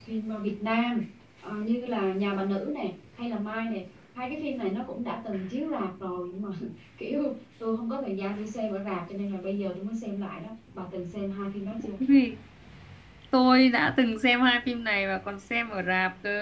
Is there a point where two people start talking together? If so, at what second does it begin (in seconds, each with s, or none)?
none